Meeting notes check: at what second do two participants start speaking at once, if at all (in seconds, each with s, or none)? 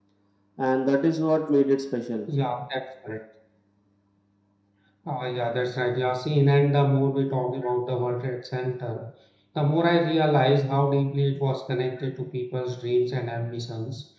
none